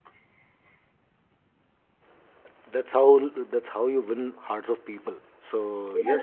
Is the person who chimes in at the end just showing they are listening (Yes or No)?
Yes